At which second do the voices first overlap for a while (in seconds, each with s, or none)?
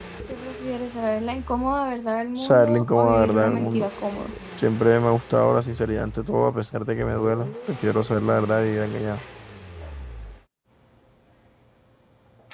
2.4 s